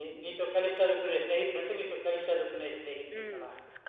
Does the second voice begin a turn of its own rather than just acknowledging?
Yes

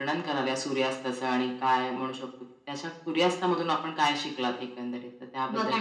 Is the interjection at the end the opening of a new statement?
Yes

